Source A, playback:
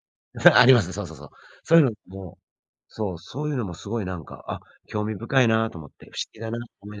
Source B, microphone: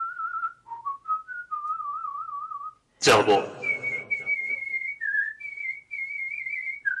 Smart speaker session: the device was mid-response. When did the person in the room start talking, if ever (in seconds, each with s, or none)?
3.0 s